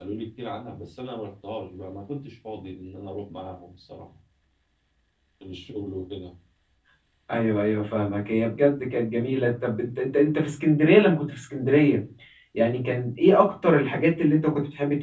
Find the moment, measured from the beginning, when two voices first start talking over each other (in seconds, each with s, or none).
none